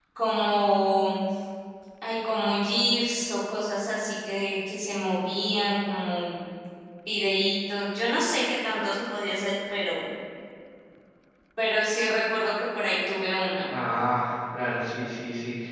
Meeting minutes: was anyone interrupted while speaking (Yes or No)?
No